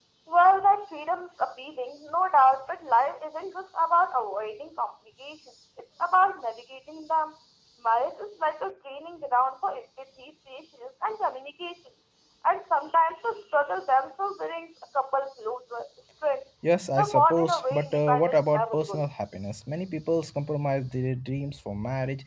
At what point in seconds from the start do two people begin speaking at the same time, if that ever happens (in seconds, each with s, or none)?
17.0 s